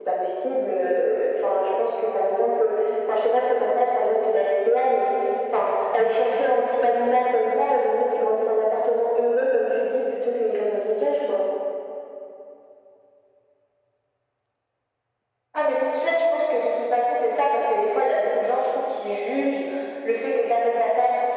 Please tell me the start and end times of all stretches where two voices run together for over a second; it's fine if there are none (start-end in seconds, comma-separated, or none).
none